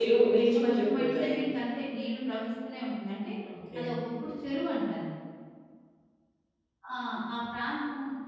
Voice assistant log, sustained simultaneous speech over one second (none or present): present